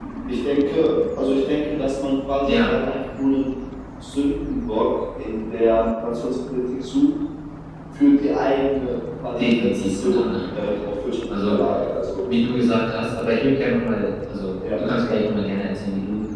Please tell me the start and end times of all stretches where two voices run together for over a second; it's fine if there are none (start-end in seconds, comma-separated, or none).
9.4-10.7